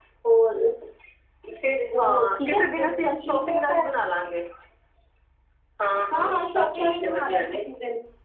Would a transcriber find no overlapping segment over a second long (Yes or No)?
No